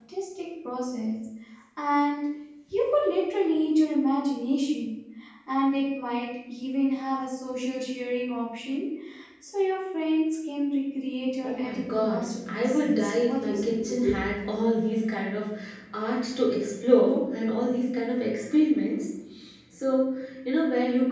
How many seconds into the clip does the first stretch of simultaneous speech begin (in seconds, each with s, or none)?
11.4 s